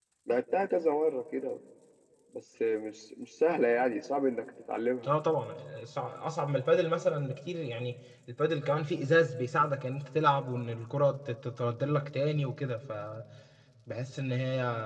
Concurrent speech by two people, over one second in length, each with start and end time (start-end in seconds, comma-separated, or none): none